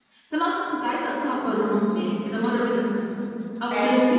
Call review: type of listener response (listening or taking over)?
listening